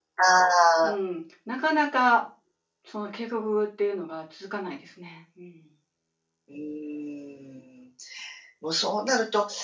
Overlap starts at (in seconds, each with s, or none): none